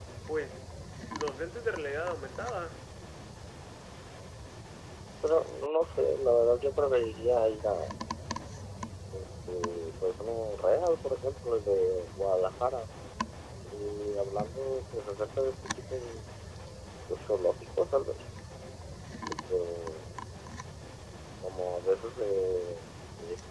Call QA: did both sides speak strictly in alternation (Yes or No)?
Yes